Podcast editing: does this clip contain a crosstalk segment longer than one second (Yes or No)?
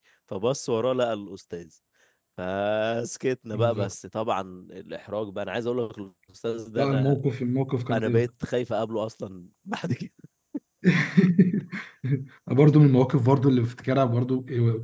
No